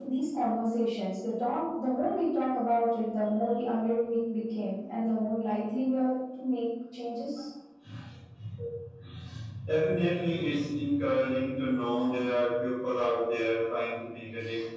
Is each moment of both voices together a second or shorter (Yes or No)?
Yes